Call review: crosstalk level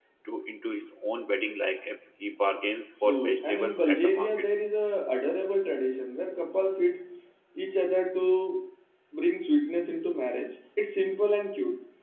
present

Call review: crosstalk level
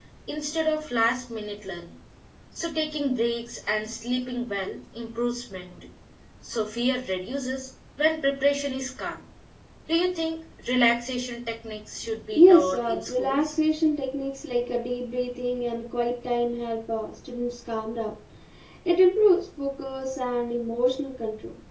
present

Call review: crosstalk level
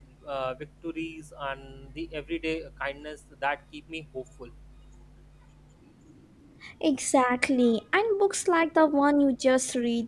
none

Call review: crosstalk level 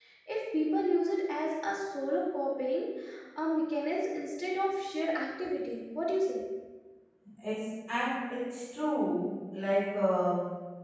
none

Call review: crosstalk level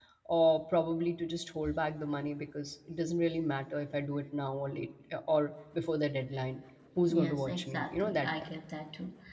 present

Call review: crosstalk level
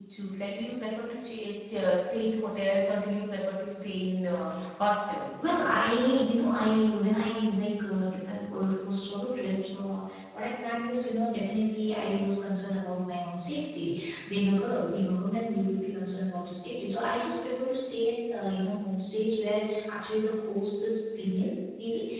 none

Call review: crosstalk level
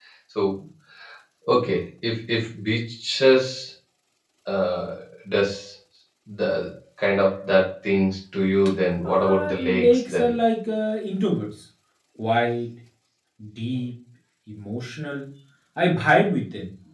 present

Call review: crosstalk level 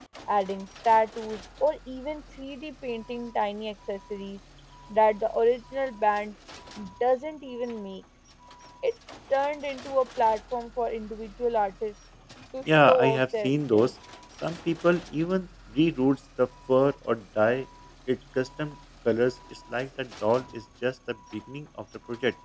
present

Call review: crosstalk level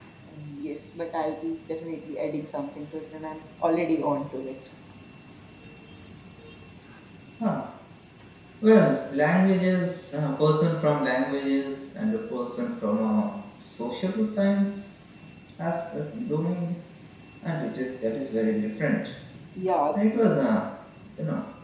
none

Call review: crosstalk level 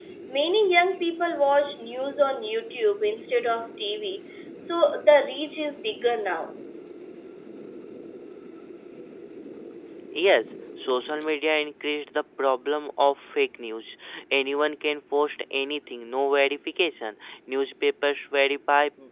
none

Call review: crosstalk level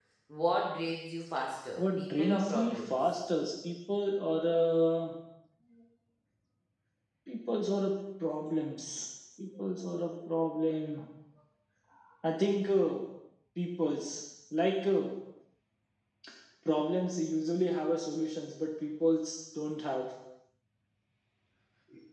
present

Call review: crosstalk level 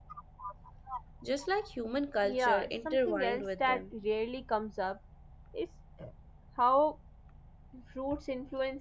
present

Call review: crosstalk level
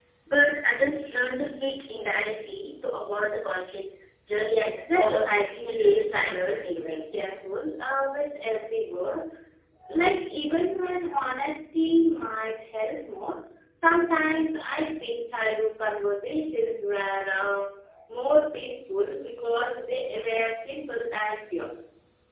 present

